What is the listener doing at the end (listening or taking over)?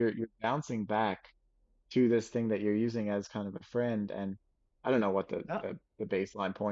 listening